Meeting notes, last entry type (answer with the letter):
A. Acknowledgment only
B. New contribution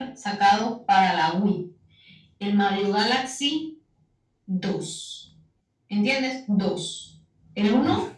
A